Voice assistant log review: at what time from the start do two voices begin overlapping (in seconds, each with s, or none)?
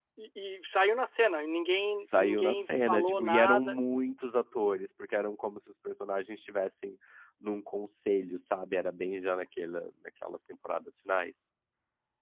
2.0 s